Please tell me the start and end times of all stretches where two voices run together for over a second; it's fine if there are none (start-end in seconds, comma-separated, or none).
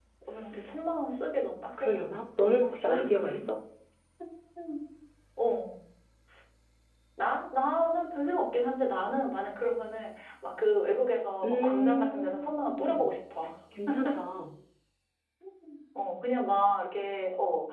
1.8-3.4, 11.4-13.1